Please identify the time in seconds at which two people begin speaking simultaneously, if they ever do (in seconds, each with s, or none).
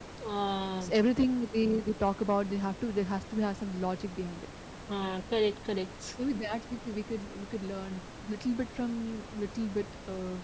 none